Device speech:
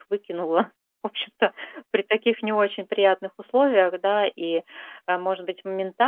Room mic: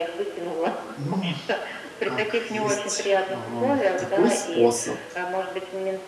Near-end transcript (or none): Ну, Как есть, ам, такой способ.